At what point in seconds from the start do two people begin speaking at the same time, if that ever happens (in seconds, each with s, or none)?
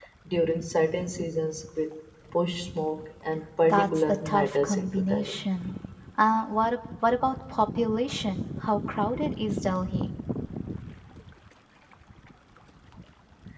3.6 s